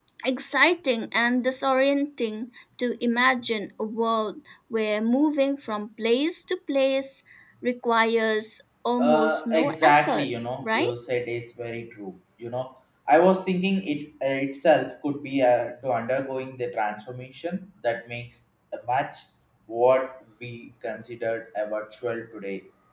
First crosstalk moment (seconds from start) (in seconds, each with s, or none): 9.0 s